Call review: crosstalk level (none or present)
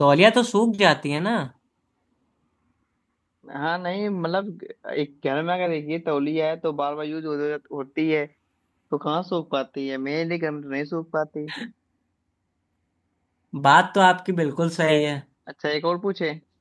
none